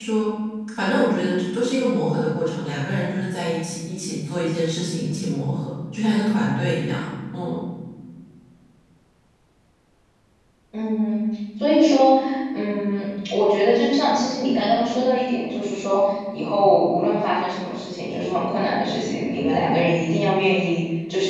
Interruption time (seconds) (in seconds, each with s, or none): none